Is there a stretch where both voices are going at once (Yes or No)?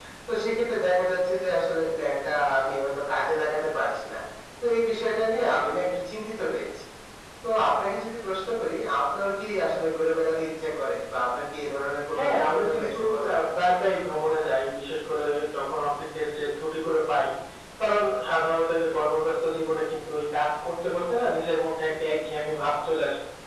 Yes